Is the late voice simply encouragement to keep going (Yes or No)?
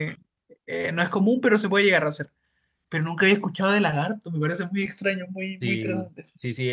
No